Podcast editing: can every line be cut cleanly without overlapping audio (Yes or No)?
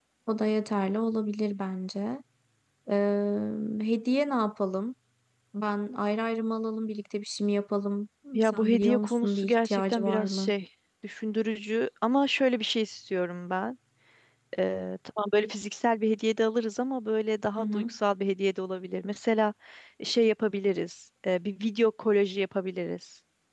No